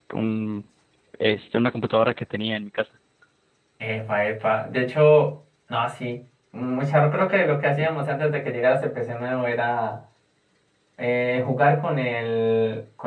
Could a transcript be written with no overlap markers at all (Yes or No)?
Yes